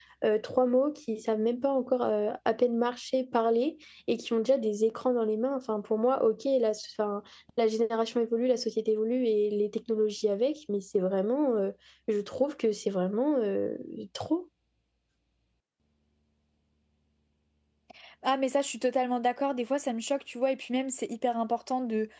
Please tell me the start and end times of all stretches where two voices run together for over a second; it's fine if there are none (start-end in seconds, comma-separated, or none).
none